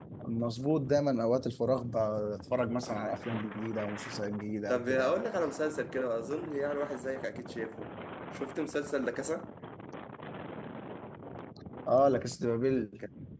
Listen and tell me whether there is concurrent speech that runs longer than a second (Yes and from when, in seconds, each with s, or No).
No